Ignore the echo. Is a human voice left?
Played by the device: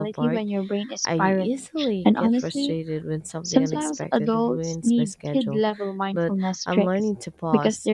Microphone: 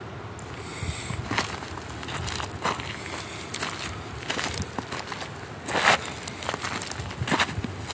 No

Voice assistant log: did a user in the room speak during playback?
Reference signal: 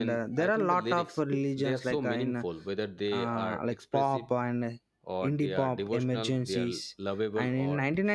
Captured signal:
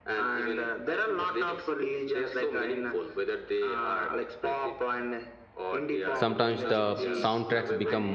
Yes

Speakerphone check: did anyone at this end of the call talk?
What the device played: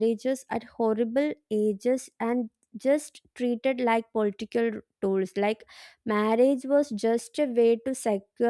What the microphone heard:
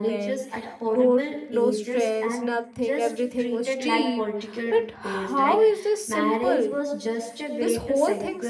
Yes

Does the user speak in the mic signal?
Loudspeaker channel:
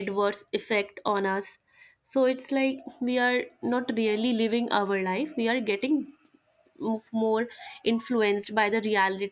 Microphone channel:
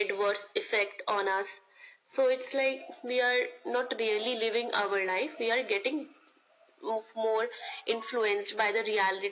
No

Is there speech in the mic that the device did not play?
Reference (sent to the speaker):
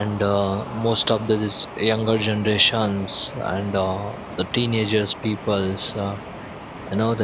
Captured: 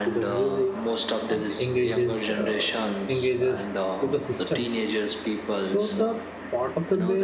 Yes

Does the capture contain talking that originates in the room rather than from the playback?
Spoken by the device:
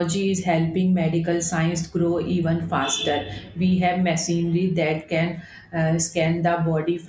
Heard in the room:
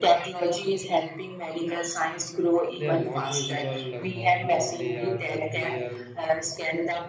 Yes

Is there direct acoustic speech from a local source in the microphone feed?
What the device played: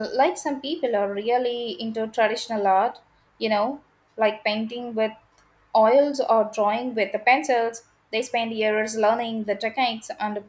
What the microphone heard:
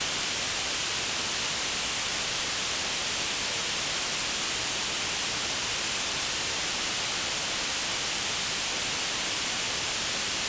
No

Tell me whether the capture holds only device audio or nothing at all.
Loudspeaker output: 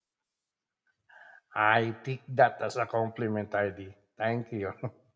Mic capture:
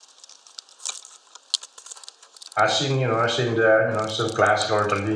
No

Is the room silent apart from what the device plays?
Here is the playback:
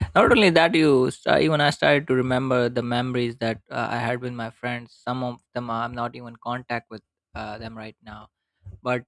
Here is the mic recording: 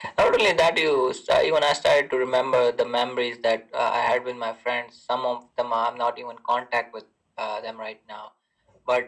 Yes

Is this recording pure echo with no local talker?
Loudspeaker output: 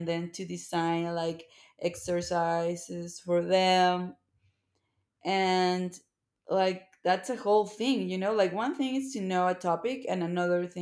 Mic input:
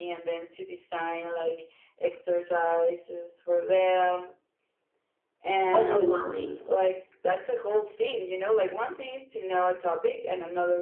No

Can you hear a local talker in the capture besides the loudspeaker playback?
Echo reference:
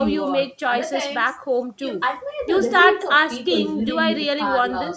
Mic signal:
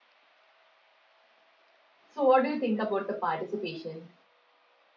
Yes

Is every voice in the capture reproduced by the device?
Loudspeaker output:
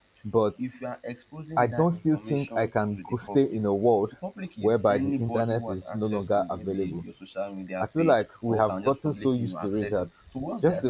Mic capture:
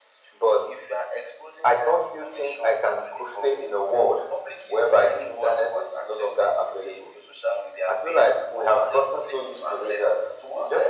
Yes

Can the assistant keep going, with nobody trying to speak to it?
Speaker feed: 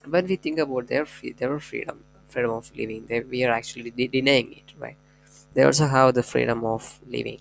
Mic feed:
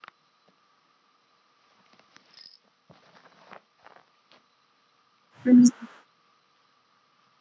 No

